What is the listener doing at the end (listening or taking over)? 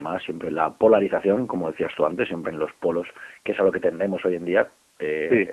listening